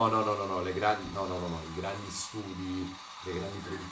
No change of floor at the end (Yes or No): Yes